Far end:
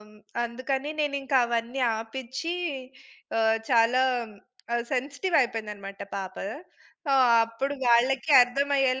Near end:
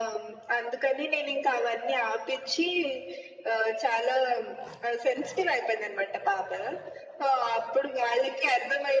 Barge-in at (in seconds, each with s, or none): none